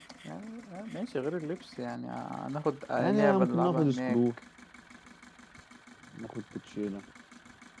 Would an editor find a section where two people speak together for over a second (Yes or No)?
Yes